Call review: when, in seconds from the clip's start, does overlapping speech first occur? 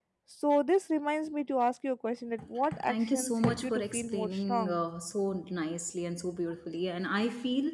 2.6 s

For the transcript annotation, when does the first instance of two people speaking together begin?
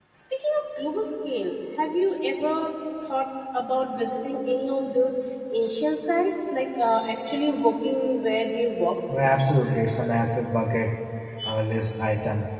none

